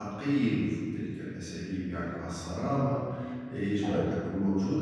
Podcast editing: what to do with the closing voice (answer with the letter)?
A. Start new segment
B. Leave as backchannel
B